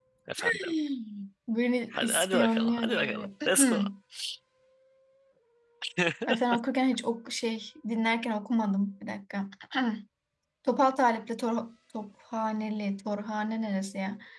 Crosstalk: present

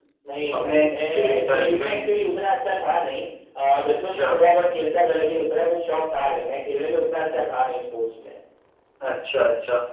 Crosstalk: present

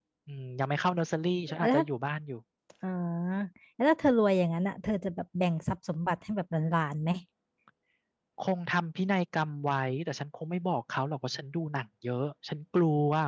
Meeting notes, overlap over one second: none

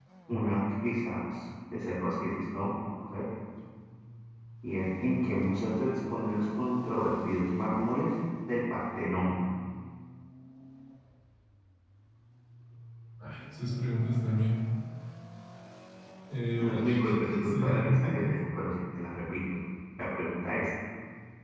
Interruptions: present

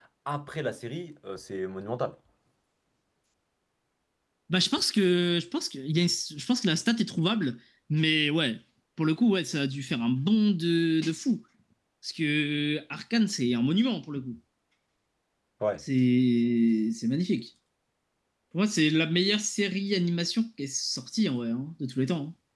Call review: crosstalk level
none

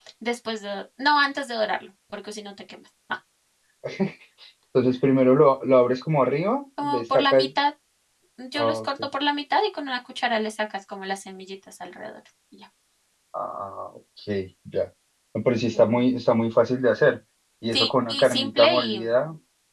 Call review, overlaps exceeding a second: present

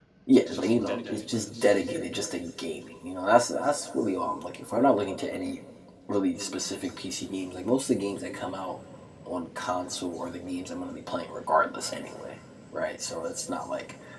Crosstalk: present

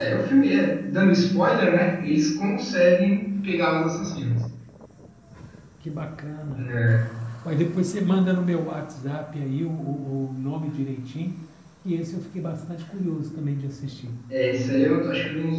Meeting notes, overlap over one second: none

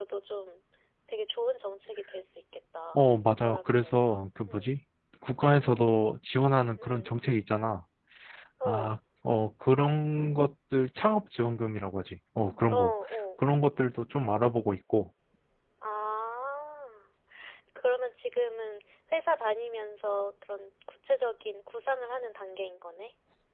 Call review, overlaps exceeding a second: present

